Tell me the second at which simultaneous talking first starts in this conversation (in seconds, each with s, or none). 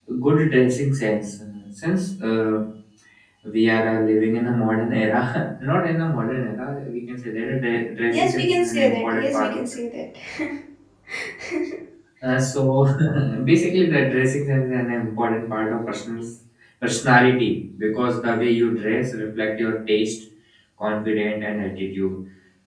8.1 s